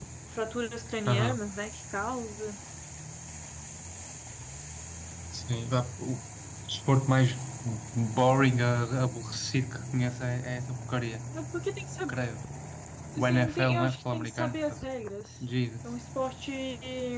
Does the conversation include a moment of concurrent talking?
Yes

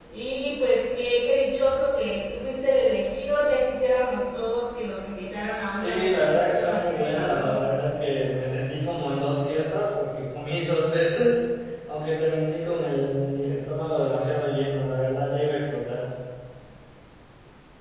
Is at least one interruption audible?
Yes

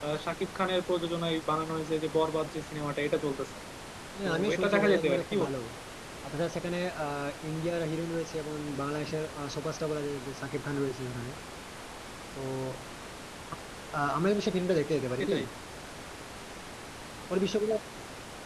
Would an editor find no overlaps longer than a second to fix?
No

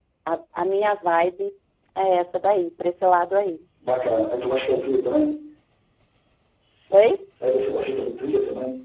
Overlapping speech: No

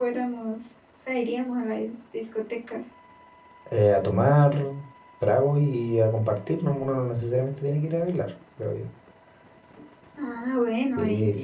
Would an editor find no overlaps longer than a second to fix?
Yes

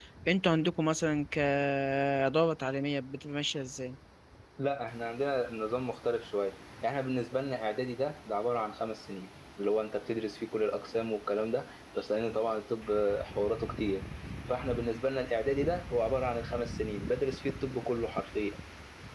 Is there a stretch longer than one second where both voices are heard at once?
No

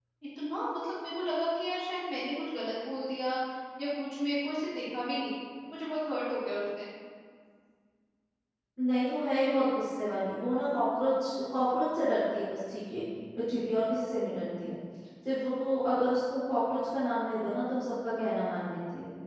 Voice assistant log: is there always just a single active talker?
Yes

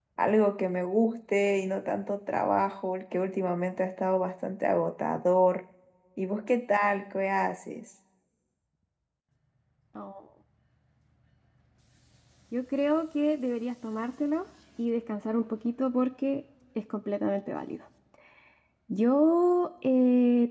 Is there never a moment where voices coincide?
Yes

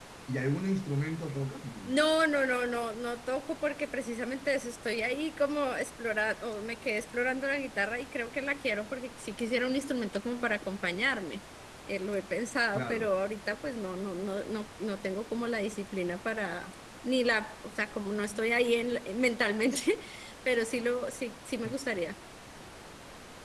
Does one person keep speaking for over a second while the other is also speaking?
No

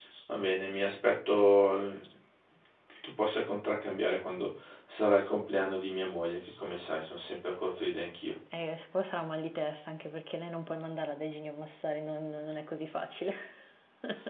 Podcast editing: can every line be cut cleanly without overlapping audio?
Yes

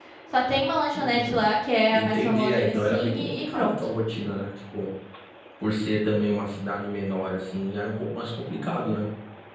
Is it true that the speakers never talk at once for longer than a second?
No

